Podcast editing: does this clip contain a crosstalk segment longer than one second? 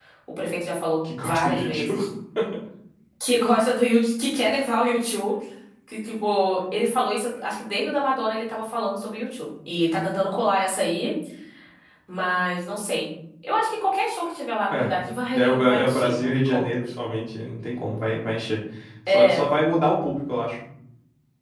Yes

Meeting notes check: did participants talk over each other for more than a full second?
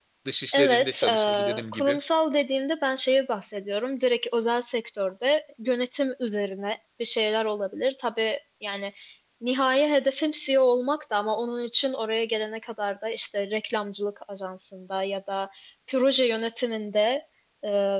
Yes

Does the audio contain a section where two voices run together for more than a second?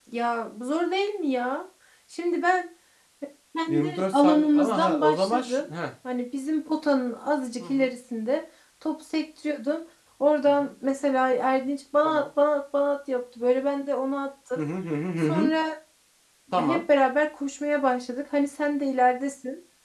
Yes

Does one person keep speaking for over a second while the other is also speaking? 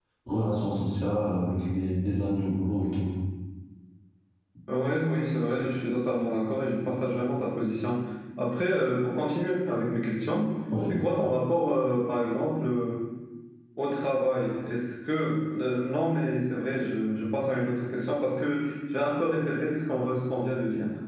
No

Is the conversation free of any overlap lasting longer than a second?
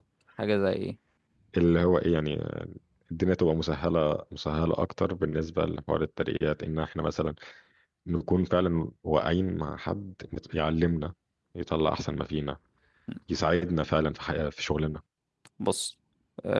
Yes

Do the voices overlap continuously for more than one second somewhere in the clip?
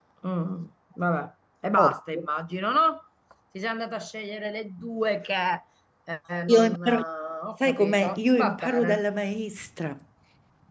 Yes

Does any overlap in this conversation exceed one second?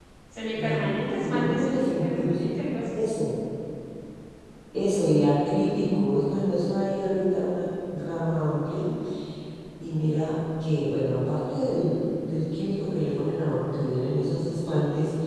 Yes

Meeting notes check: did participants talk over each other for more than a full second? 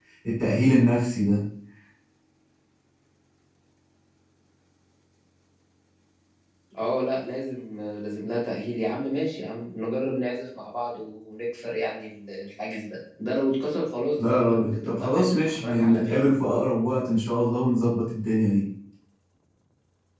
Yes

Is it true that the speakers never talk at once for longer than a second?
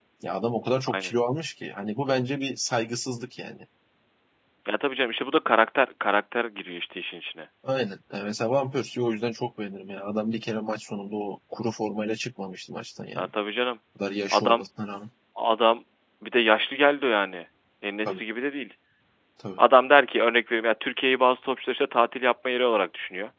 Yes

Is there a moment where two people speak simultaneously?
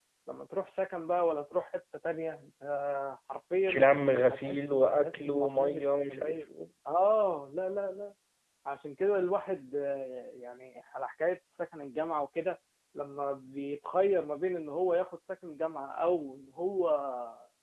Yes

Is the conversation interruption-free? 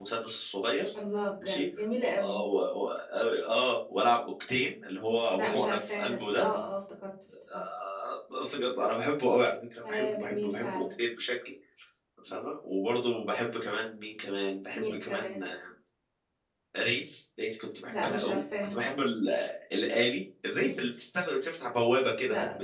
No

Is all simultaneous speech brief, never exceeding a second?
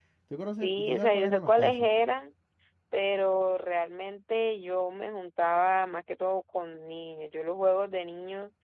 No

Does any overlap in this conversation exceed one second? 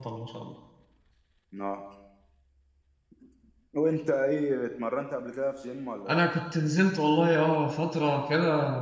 No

